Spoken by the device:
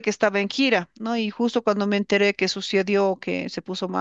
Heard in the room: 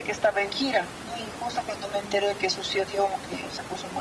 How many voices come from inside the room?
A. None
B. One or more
A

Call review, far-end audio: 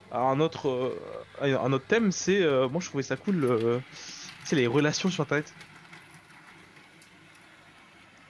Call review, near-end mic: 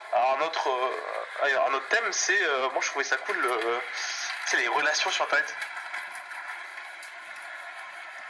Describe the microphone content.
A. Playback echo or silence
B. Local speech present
A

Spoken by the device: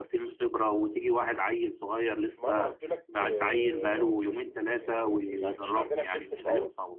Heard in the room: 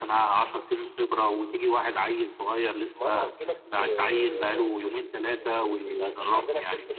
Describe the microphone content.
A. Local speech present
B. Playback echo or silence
B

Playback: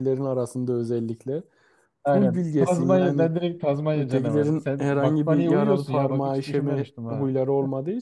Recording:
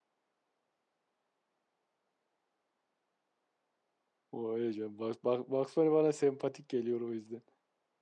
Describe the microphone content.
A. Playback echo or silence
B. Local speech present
B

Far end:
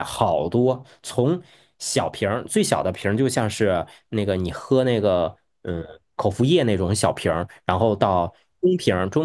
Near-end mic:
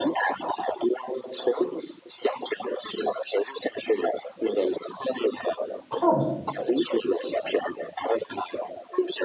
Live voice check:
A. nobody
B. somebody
B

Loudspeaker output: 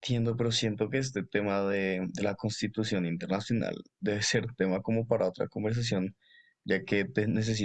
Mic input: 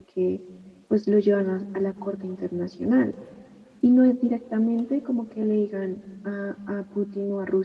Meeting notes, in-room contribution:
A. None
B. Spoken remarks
B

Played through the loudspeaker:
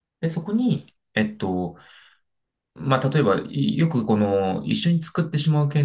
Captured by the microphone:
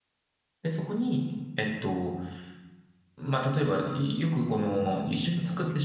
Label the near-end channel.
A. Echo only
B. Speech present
B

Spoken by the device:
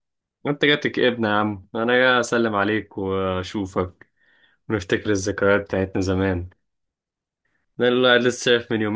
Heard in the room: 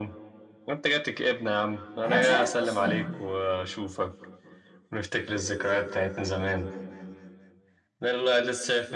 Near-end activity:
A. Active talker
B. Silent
A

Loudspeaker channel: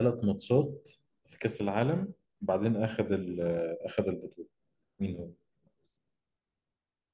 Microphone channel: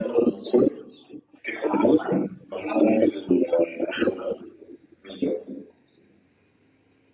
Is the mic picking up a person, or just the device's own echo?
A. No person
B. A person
A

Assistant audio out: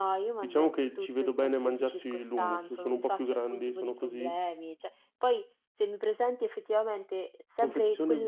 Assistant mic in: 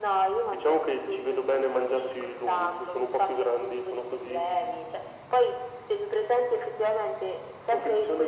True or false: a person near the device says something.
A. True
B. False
B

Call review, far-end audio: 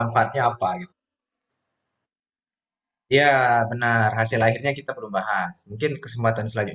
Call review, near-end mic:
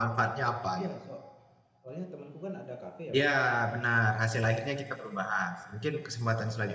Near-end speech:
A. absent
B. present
B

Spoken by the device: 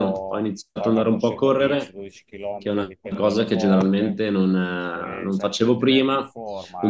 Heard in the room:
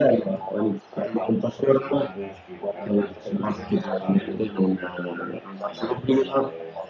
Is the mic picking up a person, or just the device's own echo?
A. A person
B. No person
A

